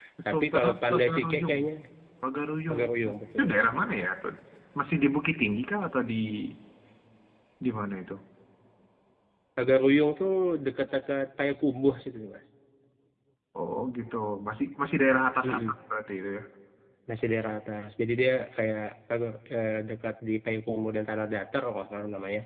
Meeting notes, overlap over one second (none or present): present